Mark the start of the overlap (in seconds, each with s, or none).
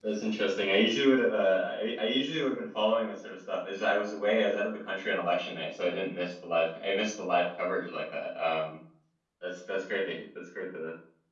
none